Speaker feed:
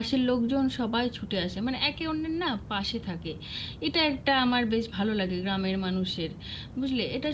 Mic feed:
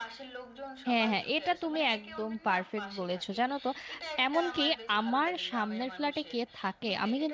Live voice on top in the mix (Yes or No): Yes